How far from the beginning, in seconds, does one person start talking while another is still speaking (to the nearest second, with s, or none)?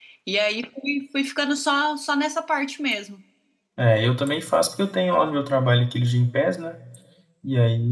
none